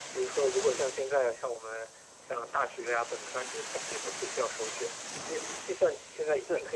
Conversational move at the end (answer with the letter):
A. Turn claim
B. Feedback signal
B